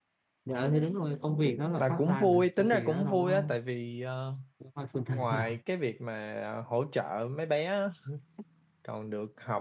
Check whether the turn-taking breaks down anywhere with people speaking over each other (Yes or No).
Yes